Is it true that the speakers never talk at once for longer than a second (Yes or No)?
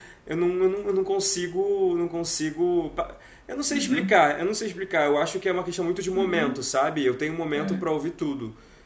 Yes